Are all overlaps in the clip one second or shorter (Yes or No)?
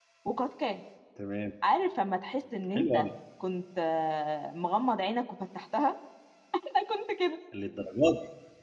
Yes